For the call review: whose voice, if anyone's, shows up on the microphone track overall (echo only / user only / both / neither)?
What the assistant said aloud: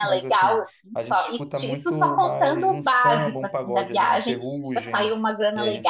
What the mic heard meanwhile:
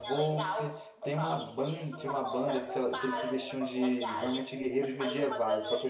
both